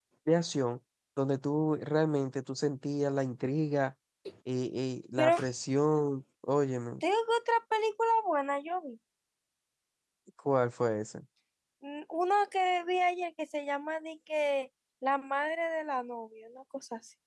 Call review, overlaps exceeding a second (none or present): none